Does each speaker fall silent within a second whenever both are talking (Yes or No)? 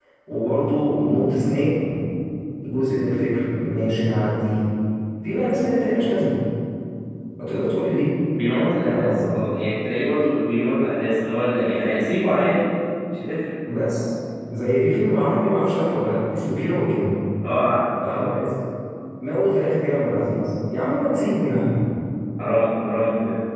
Yes